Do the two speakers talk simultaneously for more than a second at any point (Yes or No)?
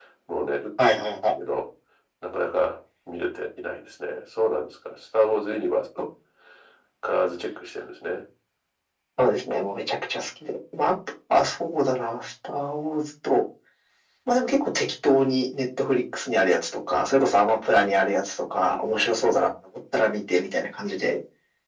No